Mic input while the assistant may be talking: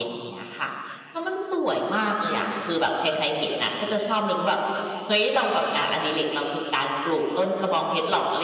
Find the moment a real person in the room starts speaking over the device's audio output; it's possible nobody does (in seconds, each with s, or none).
none